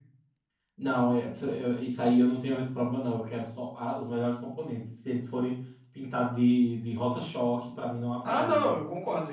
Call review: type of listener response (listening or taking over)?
taking over